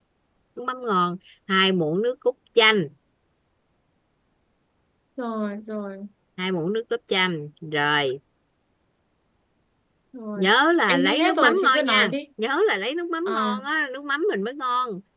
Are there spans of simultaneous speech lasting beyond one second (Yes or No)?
Yes